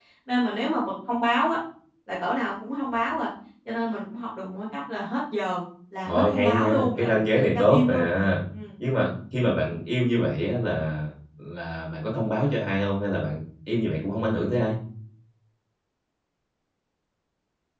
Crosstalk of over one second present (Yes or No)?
Yes